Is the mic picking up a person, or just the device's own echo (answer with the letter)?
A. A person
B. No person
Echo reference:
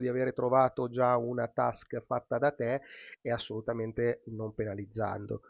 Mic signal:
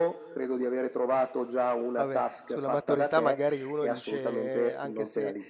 A